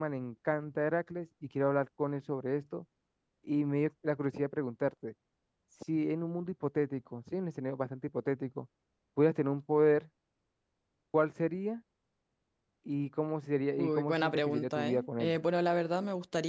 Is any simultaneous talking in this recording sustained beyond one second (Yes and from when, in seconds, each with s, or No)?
Yes, from 13.8 s